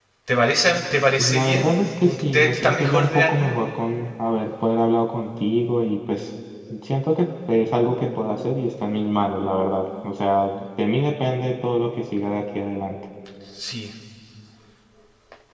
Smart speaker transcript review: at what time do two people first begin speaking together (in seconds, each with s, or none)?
1.2 s